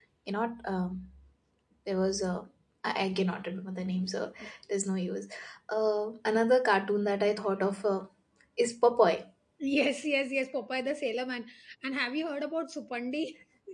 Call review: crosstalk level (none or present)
none